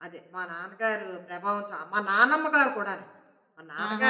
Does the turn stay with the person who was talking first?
No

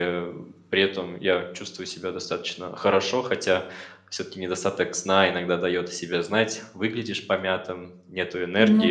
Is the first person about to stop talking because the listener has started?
No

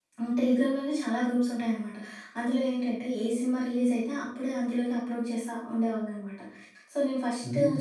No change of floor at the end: Yes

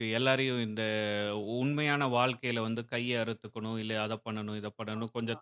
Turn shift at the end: No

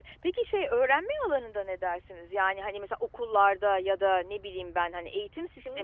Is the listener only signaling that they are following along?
No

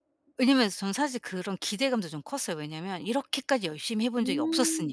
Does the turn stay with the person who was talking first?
No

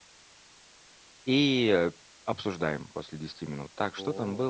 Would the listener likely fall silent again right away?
Yes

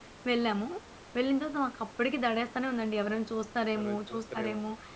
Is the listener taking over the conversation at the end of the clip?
Yes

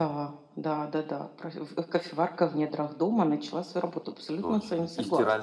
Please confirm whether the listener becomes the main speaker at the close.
Yes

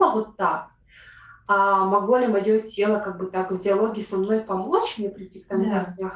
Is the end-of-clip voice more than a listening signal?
No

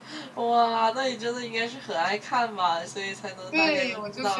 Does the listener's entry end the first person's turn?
Yes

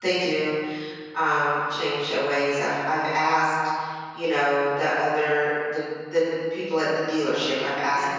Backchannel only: Yes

